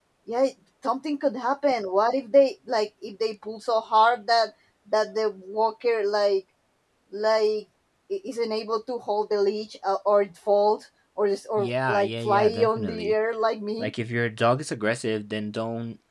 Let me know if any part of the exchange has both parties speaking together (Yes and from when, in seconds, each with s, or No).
Yes, from 11.6 s